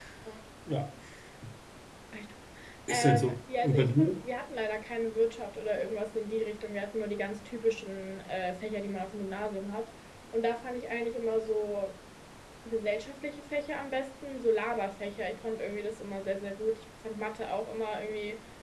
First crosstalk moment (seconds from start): 2.9 s

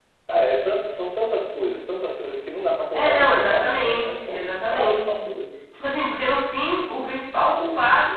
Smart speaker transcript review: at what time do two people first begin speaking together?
2.9 s

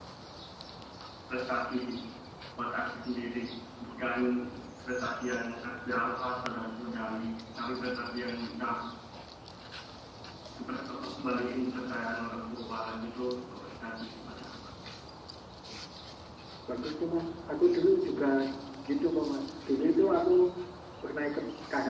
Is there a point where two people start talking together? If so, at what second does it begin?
none

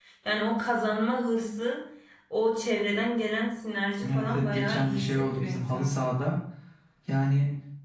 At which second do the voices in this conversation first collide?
4.0 s

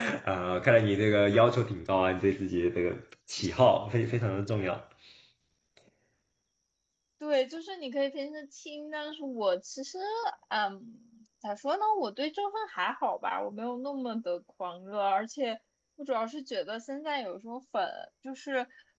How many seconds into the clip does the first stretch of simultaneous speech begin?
none

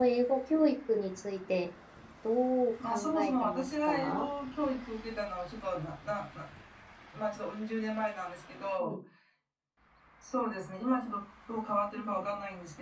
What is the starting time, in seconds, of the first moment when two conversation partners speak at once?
2.9 s

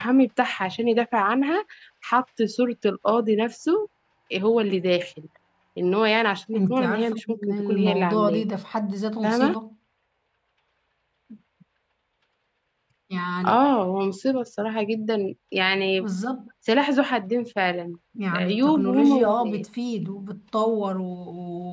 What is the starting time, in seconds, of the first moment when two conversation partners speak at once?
6.5 s

